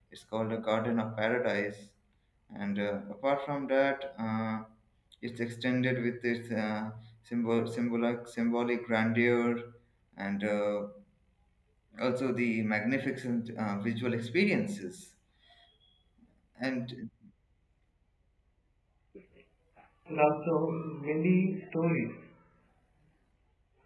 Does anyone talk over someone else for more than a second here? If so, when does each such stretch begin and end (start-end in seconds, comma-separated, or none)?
none